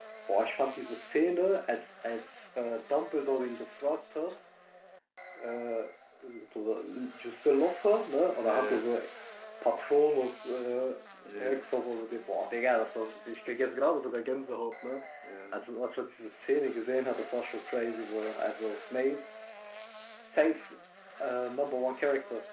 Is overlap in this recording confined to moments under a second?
Yes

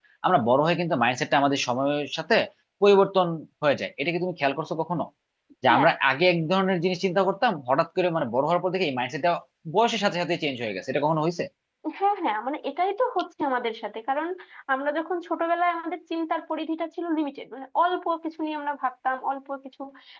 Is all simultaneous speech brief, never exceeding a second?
Yes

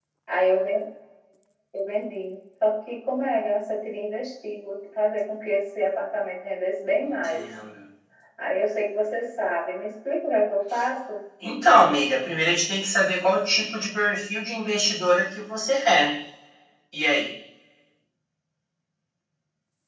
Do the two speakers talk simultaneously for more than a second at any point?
No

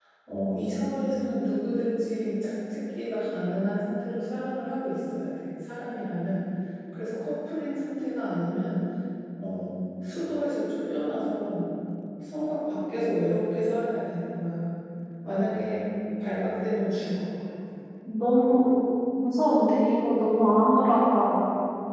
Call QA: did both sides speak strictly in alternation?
Yes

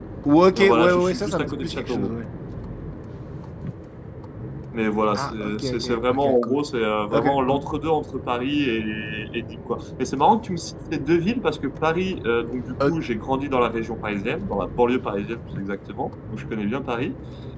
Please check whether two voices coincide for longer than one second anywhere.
Yes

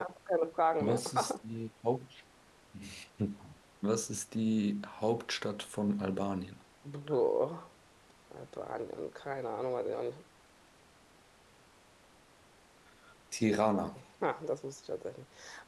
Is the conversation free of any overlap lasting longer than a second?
Yes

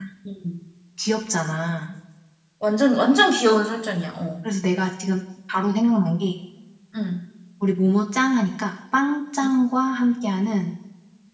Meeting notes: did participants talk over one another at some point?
No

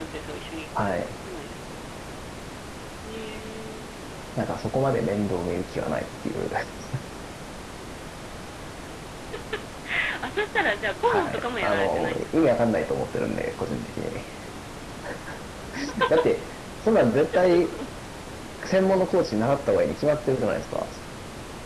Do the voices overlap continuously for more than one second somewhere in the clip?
Yes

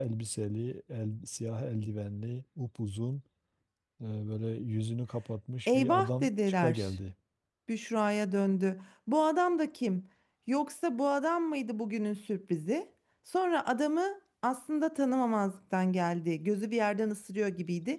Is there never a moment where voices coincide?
No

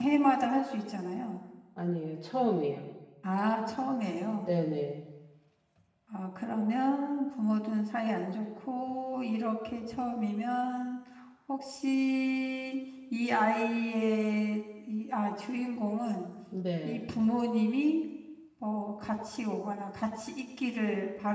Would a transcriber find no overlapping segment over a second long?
Yes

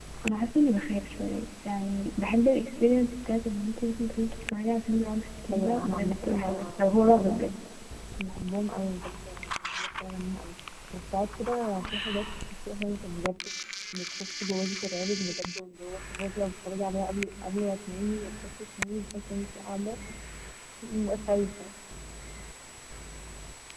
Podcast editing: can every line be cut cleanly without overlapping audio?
No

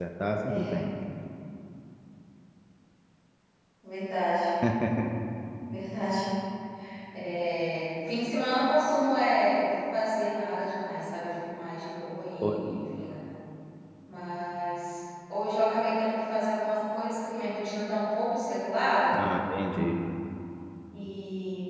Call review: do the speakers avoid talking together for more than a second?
Yes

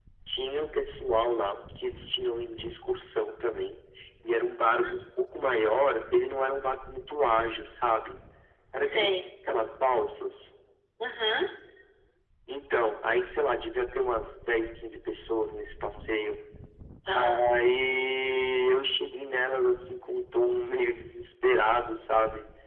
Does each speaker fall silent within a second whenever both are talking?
Yes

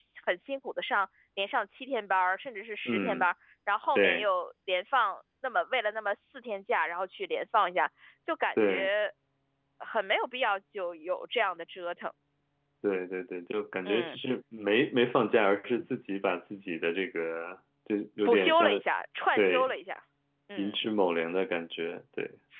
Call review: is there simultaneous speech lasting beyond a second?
No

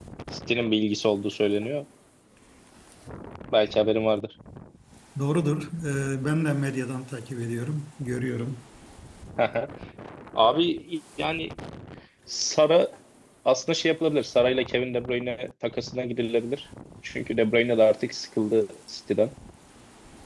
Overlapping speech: No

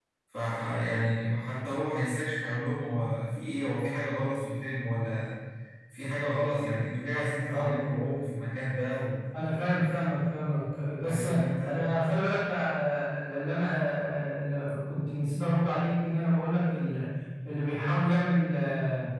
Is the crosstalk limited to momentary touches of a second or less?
Yes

